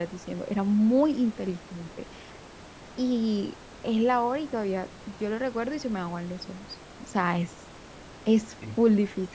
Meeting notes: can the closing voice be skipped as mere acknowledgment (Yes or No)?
No